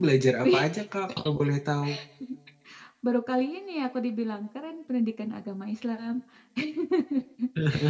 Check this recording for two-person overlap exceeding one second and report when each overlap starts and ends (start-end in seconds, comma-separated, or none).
none